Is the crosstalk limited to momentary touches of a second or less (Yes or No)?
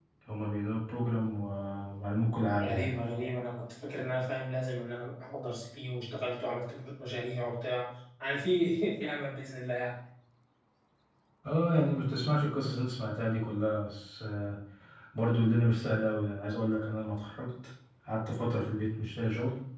Yes